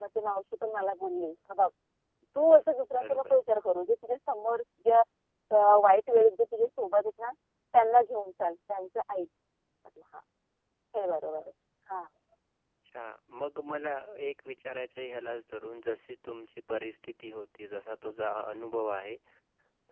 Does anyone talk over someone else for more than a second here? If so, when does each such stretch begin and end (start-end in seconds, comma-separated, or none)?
none